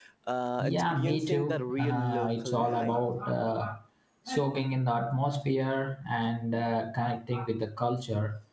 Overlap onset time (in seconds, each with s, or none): 0.6 s